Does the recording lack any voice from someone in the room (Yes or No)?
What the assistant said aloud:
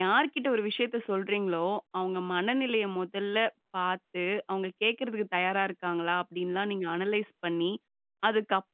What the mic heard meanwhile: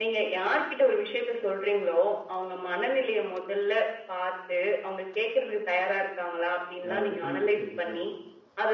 No